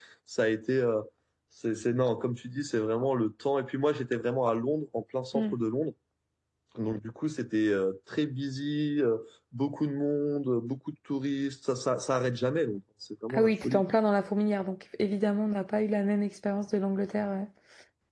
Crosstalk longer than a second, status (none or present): none